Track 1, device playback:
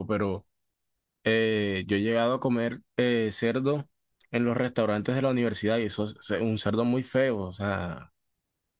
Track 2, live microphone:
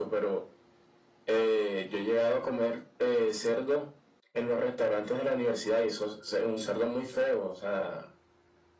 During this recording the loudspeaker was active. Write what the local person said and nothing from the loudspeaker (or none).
none